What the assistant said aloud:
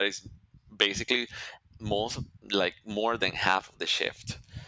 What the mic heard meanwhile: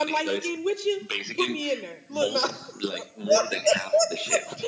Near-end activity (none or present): present